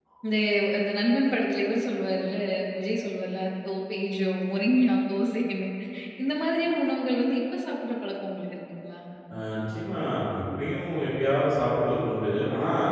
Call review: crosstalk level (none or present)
none